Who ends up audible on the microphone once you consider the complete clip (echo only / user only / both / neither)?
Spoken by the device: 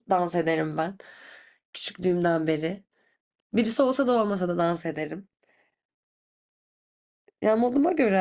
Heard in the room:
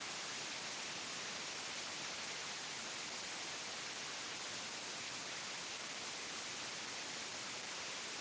neither